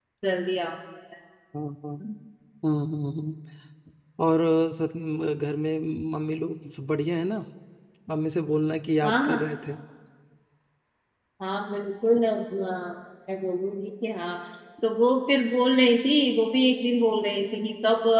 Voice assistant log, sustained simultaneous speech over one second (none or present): none